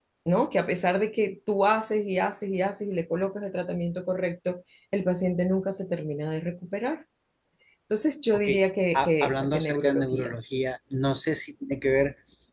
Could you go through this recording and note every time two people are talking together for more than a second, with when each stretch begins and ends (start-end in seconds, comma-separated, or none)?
8.9-10.4